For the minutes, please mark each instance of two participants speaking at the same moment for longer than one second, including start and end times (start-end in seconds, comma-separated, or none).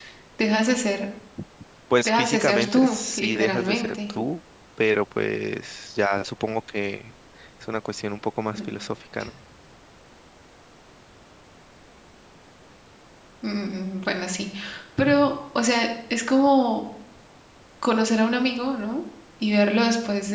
2.0-4.1